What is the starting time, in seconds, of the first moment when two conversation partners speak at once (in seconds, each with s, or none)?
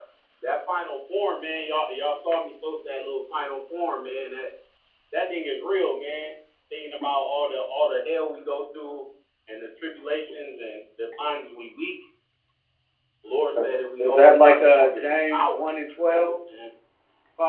14.0 s